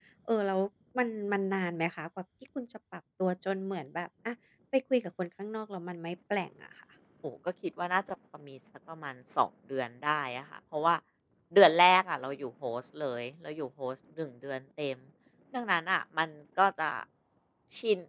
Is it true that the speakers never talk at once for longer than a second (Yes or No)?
Yes